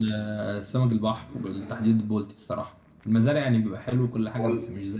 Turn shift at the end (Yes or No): No